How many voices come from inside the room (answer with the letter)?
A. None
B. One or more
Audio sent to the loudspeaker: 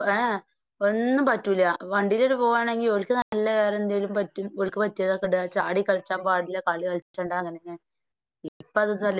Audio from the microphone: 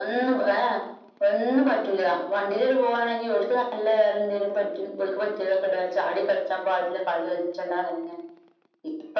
A